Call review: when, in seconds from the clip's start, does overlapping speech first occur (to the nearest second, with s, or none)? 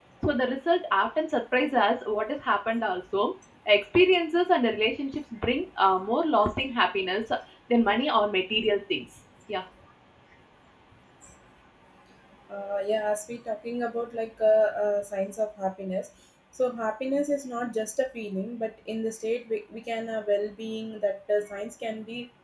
none